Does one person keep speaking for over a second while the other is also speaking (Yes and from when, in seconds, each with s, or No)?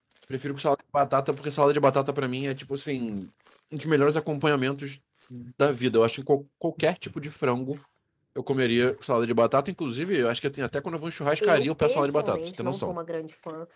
Yes, from 11.4 s